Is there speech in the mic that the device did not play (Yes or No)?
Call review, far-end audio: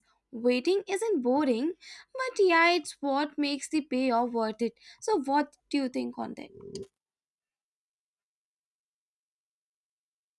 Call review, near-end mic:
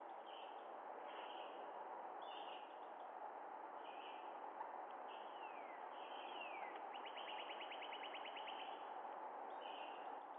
No